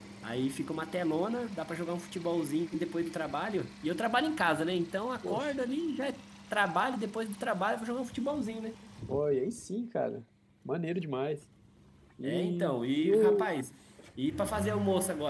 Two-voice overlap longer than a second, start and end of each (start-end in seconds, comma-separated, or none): 12.2-13.5